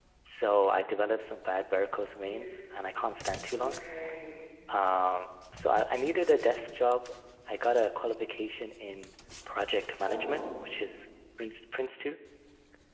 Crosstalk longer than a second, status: none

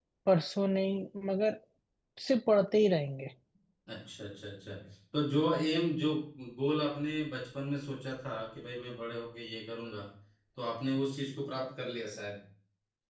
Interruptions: none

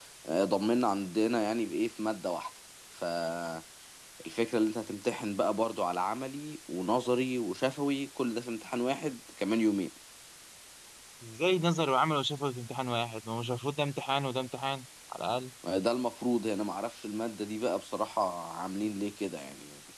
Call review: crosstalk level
none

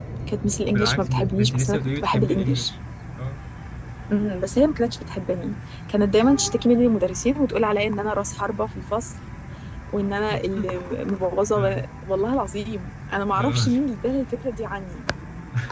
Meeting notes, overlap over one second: present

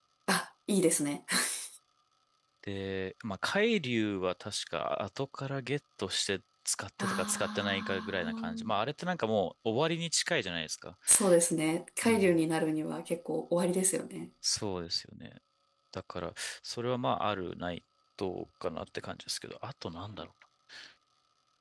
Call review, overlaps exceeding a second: present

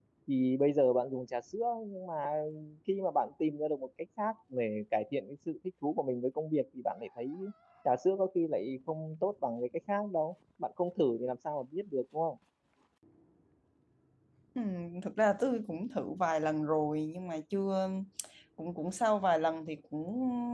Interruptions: none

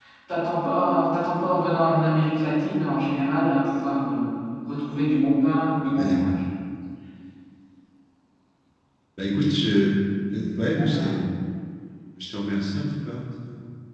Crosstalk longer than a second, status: none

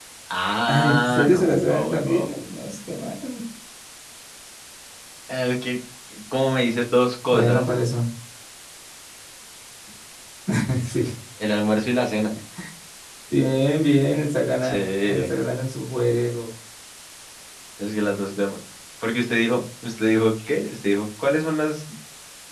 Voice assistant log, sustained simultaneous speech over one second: present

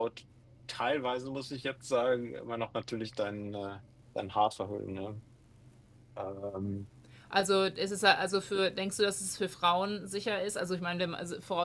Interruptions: none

